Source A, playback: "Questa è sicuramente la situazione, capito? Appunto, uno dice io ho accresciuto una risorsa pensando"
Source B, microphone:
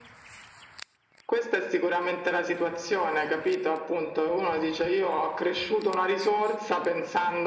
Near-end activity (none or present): none